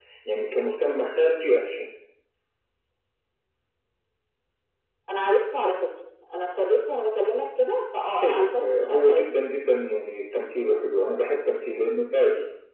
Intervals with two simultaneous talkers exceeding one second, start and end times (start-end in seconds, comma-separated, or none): 8.1-9.5